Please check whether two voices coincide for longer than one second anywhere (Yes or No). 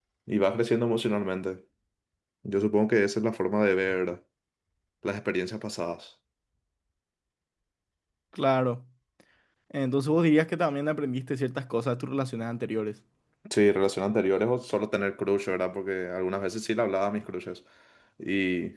No